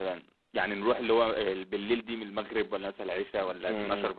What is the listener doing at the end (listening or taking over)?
taking over